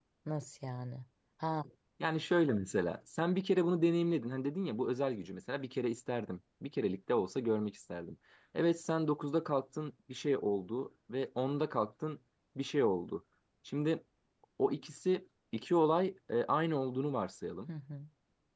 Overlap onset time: none

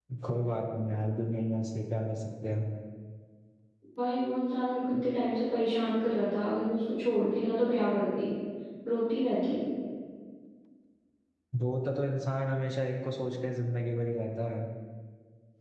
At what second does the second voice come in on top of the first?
none

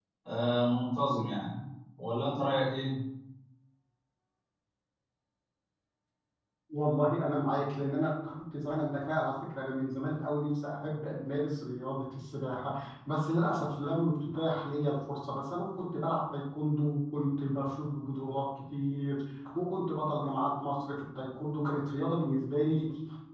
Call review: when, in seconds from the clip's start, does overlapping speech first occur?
none

